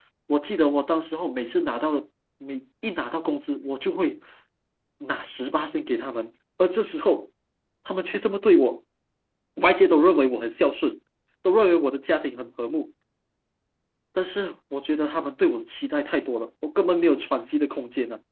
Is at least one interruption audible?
No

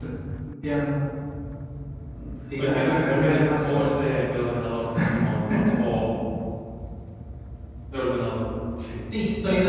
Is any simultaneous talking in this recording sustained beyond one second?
Yes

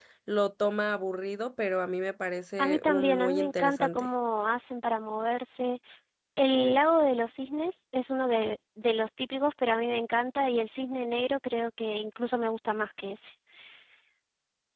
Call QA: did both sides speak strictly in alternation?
No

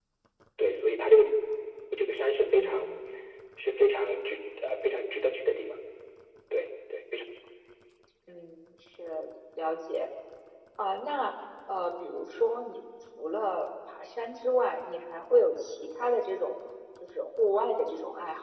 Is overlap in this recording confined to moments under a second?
Yes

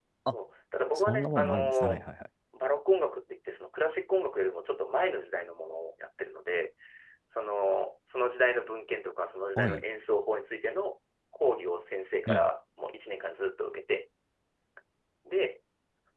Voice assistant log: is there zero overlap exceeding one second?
No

